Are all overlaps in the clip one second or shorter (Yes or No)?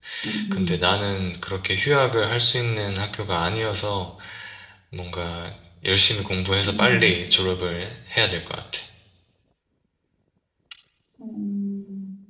Yes